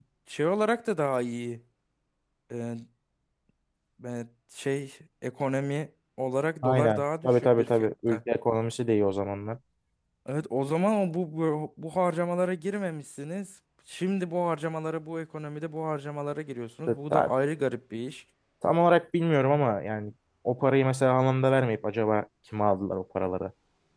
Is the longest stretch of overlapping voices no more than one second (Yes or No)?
No